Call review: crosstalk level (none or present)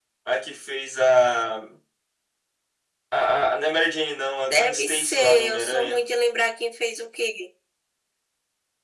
present